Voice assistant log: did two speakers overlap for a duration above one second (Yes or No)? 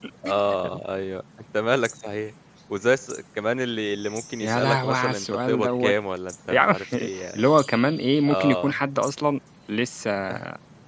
Yes